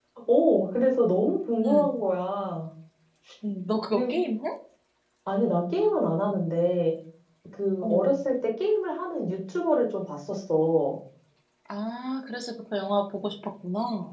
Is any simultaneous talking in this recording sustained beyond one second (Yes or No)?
No